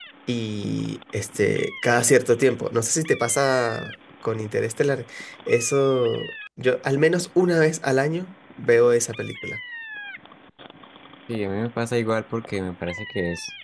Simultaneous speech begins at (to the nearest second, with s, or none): none